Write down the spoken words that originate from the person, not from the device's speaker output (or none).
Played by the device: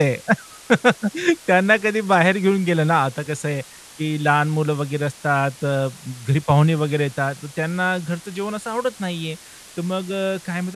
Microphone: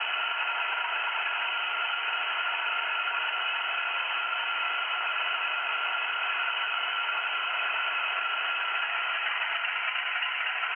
none